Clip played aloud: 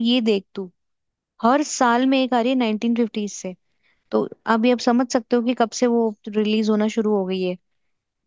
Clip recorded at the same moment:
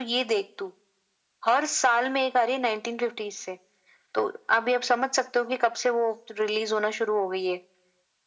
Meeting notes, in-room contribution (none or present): none